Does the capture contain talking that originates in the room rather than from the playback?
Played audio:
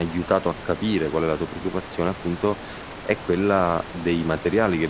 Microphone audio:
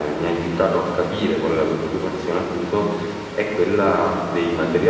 No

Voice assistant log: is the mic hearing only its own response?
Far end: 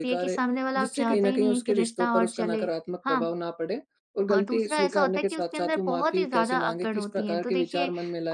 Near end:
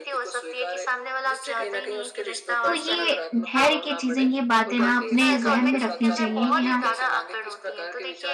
No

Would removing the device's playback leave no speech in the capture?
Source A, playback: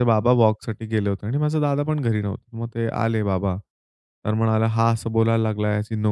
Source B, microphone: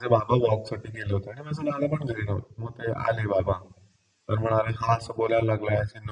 Yes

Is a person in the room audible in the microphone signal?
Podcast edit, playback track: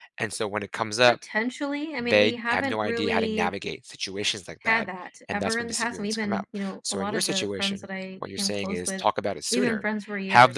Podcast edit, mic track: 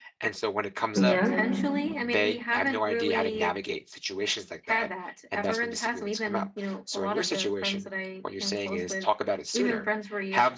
Yes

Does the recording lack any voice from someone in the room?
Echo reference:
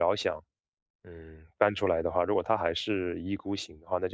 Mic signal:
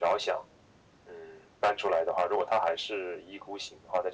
Yes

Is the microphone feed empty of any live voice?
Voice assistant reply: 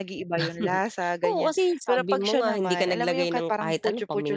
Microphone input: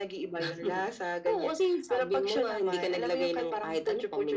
Yes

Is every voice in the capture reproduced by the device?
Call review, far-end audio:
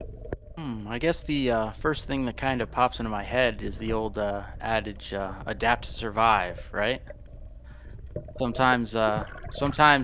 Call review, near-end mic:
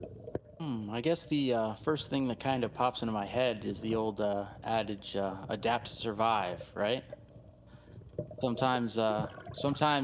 Yes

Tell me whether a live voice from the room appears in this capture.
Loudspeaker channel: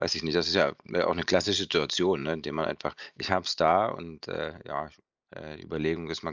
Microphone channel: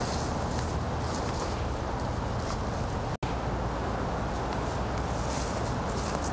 No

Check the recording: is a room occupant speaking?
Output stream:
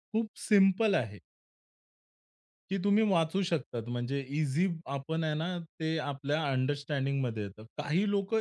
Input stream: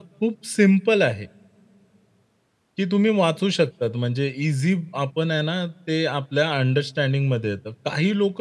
No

